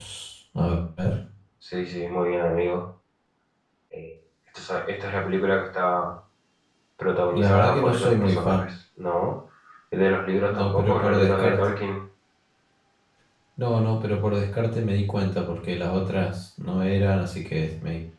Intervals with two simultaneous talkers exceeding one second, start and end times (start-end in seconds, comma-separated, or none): 7.3-8.7, 10.5-11.7